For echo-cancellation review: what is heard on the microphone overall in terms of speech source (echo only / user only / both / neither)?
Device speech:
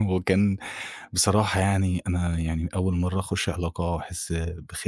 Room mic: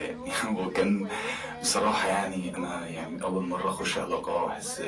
both